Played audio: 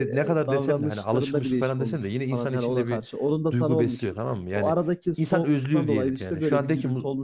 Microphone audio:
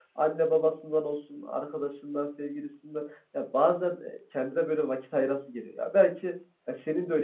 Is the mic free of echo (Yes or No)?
Yes